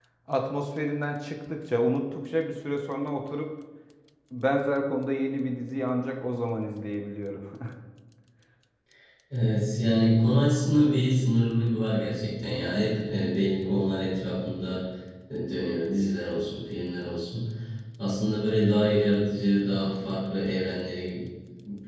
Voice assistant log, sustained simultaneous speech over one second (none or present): none